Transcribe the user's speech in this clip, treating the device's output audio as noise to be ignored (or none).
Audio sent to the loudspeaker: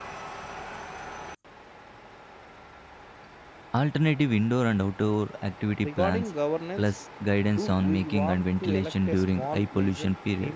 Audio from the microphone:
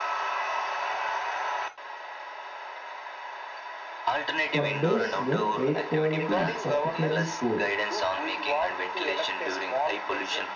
For days when air quality is particularly poor,